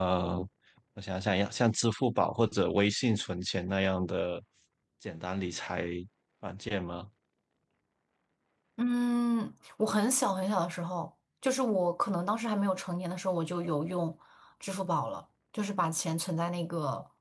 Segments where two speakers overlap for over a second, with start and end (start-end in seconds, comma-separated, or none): none